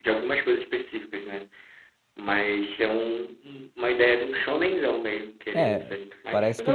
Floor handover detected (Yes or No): Yes